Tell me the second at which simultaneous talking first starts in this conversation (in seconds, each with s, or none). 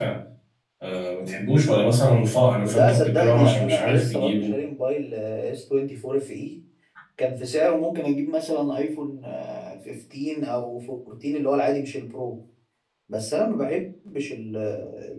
2.6 s